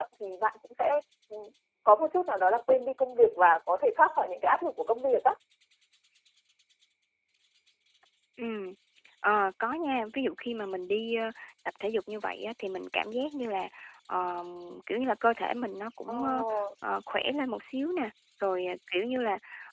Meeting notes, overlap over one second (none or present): none